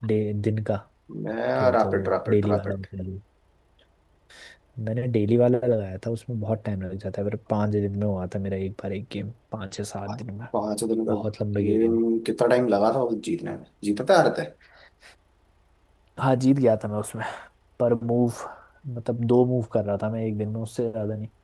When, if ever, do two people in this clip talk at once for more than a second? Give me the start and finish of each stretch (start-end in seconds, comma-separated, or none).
1.6-2.8